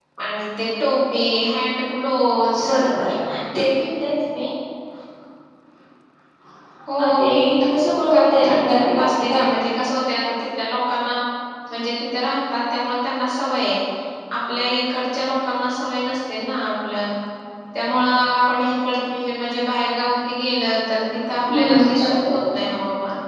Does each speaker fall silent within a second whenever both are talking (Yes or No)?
No